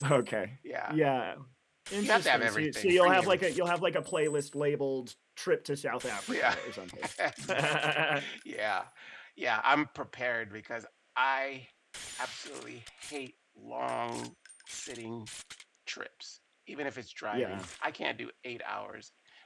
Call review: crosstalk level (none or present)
present